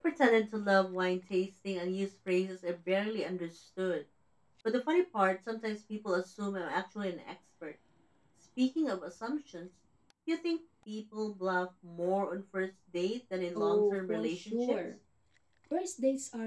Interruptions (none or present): present